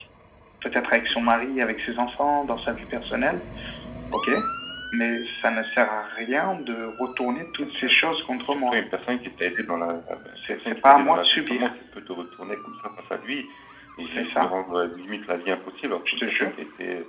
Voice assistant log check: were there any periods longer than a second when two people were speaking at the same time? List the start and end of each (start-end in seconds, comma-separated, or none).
10.3-11.7